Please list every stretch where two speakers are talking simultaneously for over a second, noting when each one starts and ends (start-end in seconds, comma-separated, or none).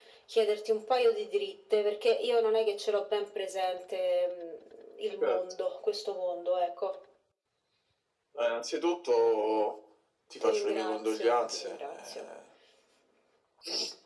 10.4-12.3